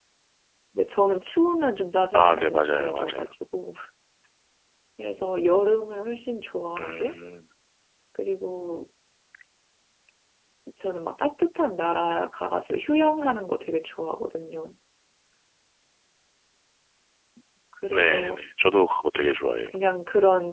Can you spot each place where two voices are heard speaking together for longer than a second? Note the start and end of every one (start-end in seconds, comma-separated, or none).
2.1-3.3